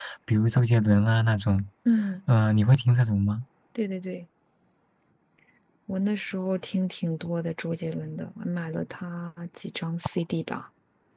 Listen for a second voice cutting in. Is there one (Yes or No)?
No